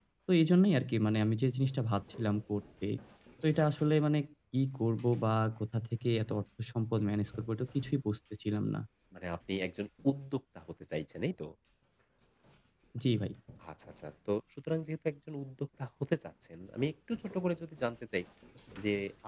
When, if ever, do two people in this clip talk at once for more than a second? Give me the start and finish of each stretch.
none

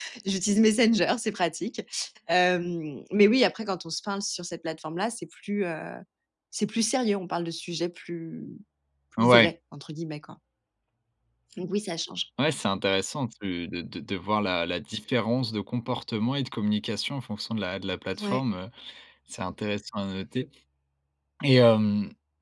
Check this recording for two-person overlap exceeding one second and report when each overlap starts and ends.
none

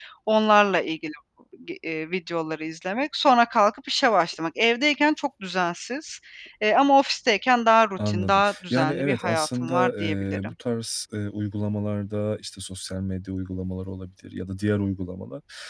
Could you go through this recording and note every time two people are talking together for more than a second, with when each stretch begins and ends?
8.1-10.5

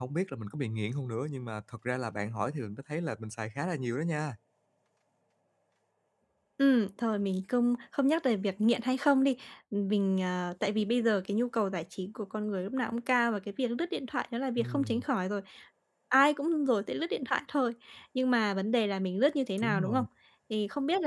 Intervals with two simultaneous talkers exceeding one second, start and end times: none

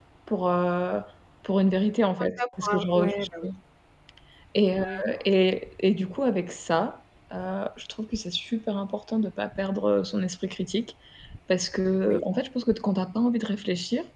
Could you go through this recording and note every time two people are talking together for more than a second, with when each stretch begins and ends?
2.2-3.5

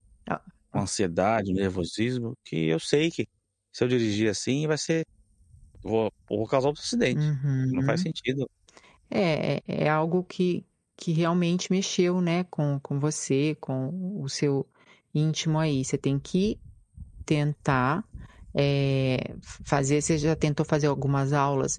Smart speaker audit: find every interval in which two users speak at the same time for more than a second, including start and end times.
none

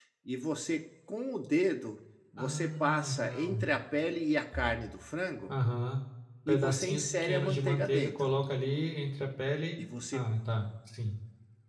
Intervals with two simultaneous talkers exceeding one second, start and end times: 2.4-3.6, 6.5-8.4

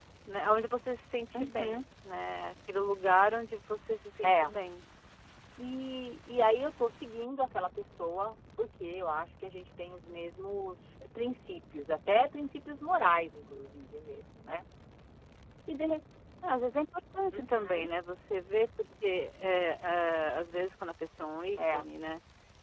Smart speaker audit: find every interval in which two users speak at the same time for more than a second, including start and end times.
none

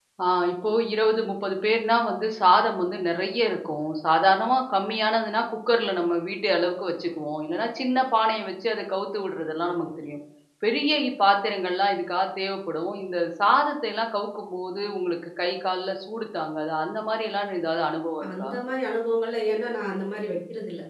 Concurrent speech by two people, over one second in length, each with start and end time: none

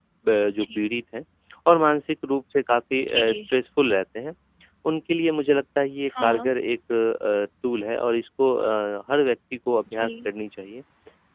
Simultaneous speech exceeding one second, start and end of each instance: none

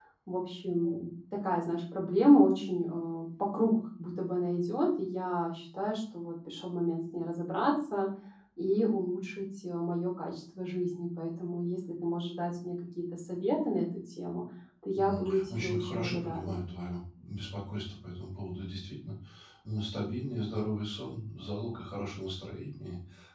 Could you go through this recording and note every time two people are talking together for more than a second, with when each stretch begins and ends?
14.9-16.6

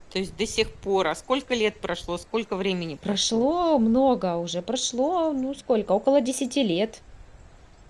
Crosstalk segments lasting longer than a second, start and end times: none

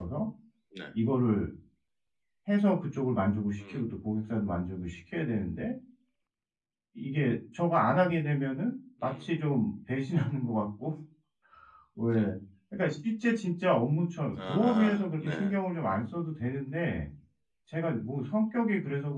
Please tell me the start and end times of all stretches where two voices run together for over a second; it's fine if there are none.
14.3-15.6

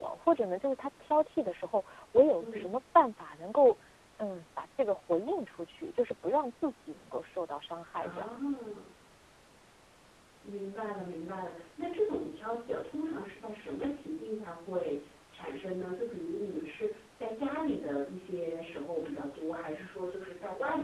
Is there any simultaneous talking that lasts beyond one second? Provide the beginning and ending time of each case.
none

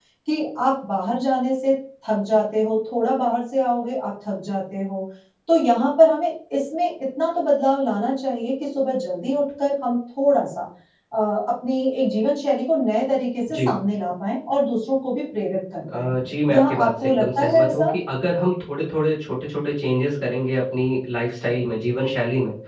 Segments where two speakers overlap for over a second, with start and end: 16.5-17.9

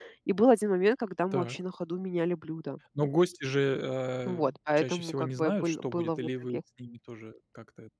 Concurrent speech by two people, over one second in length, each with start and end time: 4.4-6.6

